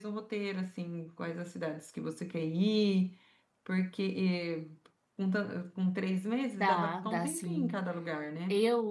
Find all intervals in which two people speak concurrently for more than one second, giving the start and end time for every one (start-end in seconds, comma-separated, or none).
6.6-7.8